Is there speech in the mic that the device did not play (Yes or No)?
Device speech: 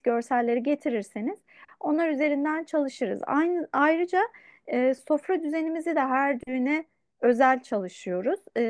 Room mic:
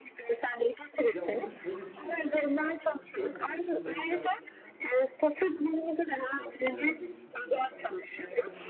Yes